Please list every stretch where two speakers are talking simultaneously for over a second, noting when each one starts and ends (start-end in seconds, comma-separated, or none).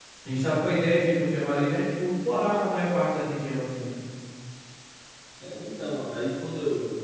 none